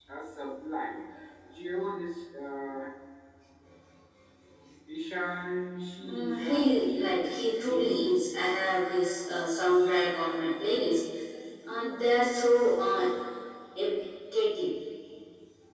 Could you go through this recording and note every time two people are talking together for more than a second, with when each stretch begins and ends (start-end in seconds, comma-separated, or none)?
6.0-8.0